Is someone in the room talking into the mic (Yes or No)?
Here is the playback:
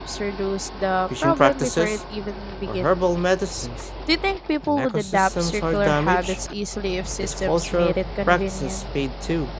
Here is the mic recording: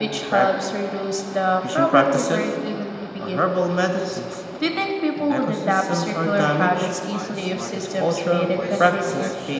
Yes